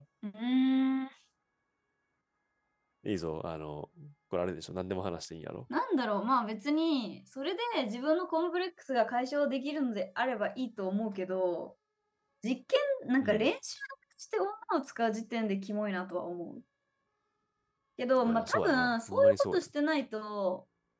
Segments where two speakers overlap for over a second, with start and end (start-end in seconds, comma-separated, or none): 18.3-19.7